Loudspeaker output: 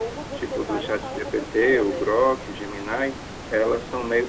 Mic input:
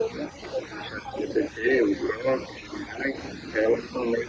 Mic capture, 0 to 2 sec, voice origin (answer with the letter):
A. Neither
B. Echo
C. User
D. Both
B